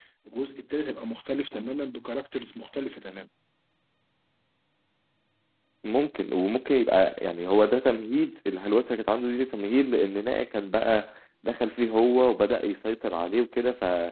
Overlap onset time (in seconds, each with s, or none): none